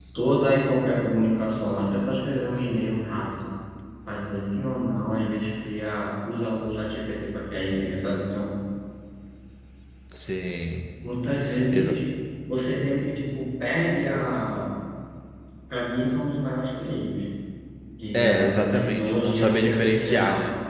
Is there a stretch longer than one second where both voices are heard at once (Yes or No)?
Yes